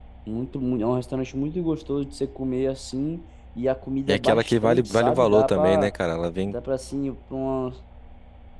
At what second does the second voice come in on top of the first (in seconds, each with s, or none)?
4.1 s